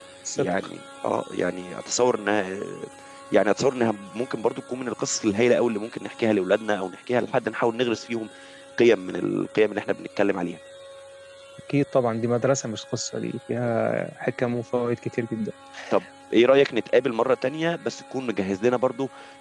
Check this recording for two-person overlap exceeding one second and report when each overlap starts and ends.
none

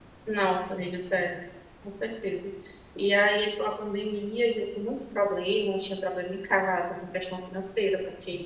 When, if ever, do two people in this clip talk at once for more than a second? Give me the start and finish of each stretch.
none

